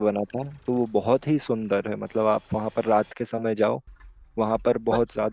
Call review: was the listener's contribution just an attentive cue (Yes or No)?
Yes